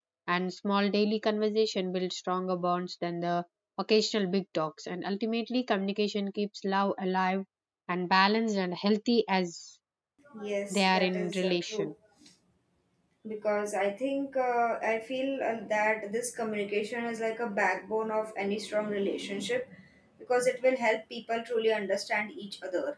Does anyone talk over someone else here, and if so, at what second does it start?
10.7 s

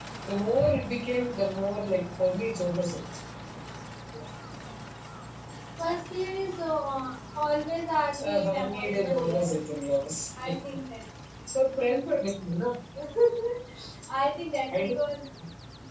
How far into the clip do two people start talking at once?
8.2 s

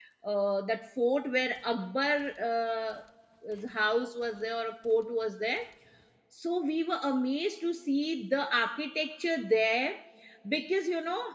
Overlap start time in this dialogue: none

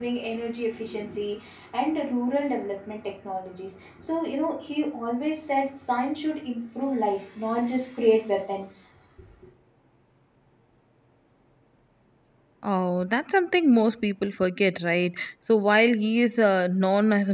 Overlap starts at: none

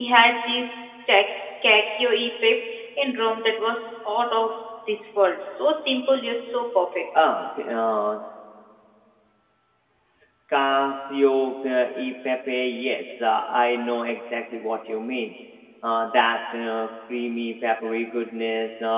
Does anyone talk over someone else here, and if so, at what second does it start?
none

